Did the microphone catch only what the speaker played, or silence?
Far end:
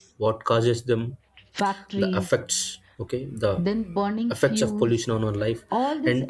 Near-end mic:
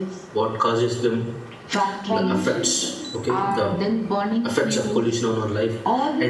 No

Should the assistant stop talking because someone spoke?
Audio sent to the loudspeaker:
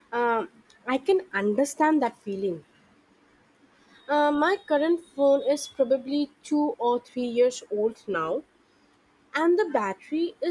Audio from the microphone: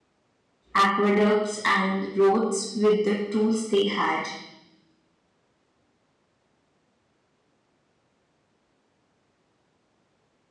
Yes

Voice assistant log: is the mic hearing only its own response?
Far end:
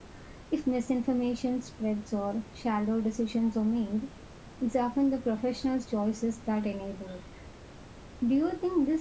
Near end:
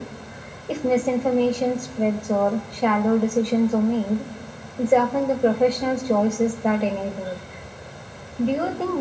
Yes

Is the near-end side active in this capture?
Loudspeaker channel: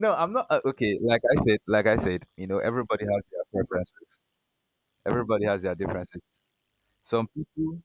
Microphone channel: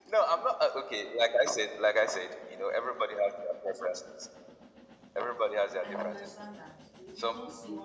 Yes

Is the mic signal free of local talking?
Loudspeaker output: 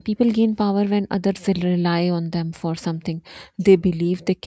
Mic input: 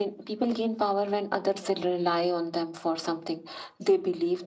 Yes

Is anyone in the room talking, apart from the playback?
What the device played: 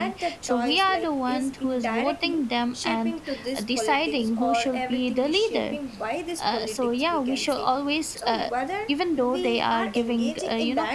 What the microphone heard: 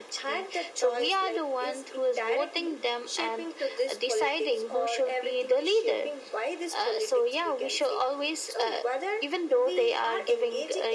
No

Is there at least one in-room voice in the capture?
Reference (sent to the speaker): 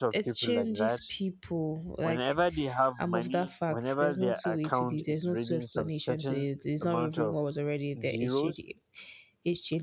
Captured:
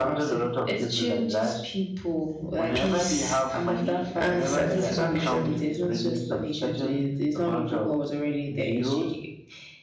Yes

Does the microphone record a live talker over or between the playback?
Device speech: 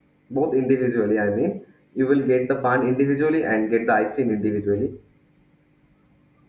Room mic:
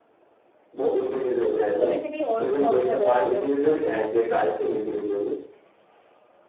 Yes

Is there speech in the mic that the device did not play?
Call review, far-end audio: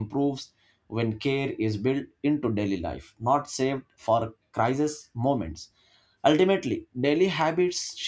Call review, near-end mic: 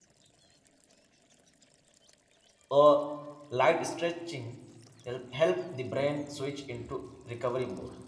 Yes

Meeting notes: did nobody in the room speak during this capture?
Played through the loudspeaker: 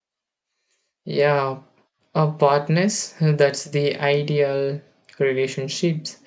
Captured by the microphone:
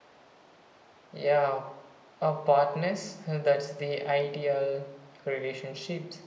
Yes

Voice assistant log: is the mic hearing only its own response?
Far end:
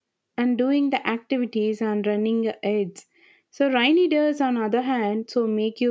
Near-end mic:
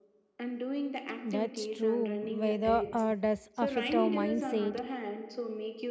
No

